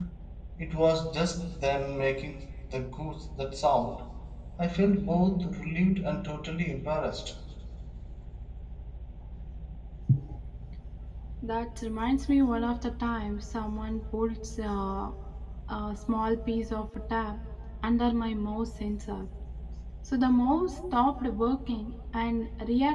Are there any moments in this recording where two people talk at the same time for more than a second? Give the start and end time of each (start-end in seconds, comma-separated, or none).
none